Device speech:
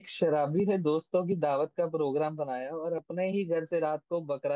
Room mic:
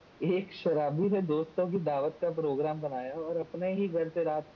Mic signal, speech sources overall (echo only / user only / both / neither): echo only